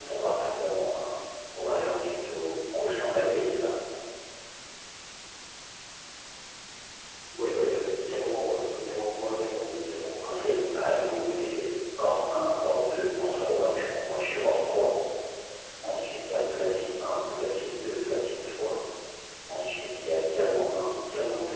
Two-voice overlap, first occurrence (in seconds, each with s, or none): 10.2 s